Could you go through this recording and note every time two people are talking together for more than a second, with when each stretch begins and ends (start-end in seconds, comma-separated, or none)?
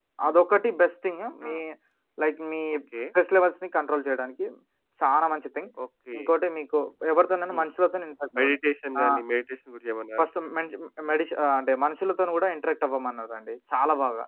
none